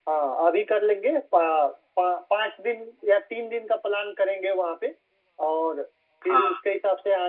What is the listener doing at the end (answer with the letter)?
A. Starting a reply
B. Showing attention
B